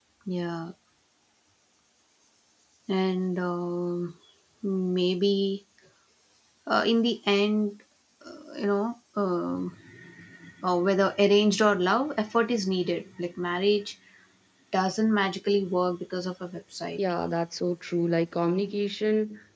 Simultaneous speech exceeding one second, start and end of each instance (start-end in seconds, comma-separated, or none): none